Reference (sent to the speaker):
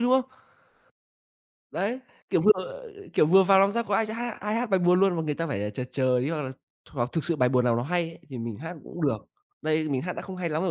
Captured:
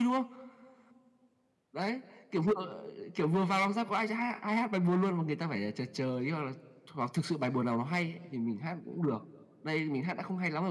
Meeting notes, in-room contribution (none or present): none